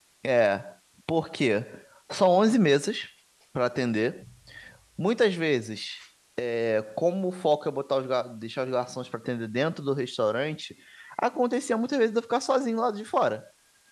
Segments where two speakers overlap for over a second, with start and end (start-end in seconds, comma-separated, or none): none